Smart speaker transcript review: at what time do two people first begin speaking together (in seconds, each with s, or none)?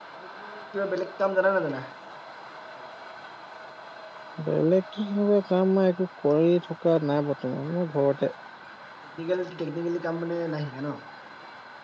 none